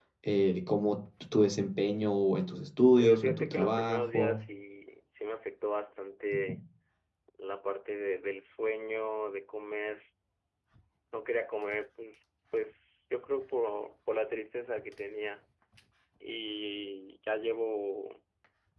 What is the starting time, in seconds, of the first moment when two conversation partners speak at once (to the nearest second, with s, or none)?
3 s